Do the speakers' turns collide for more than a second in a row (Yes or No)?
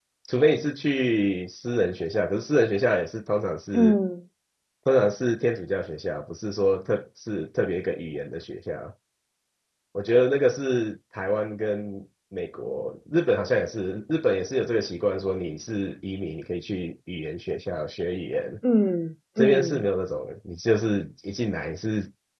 No